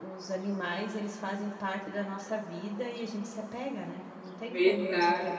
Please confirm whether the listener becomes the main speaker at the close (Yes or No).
Yes